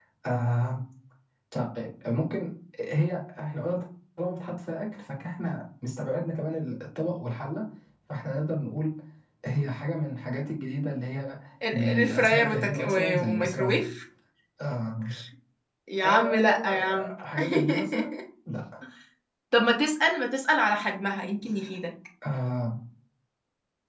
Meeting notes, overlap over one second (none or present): present